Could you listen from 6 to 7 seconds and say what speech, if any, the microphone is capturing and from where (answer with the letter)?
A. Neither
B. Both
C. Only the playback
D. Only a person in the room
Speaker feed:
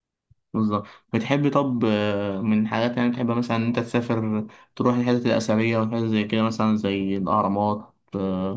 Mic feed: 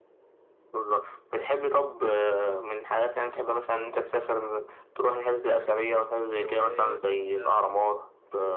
B